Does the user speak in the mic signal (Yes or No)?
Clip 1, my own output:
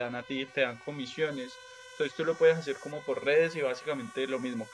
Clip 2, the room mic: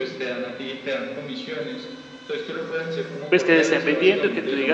Yes